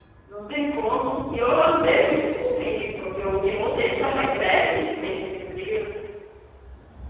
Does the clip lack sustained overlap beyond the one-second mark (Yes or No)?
No